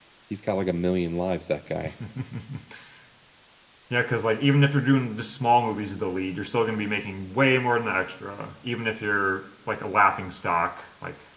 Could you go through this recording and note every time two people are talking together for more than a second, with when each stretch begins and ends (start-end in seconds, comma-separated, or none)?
none